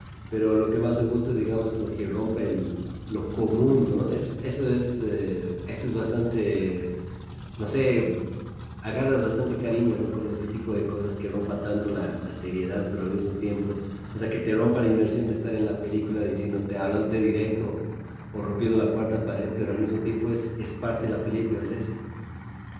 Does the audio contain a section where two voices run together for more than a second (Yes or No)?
No